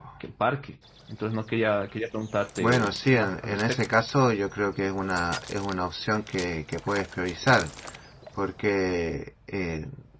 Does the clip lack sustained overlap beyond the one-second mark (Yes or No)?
No